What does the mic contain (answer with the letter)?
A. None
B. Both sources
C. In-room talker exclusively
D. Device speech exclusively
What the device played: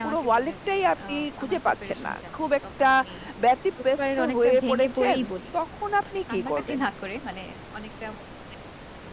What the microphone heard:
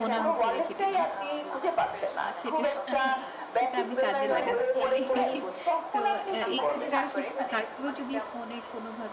B